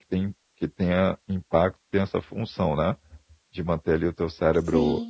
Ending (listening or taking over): listening